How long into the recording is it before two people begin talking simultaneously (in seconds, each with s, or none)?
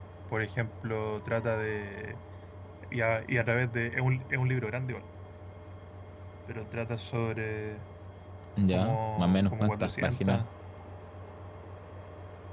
8.7 s